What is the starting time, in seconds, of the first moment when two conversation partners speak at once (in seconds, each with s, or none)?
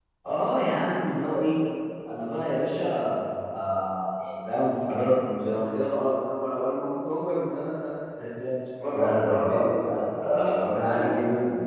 8.8 s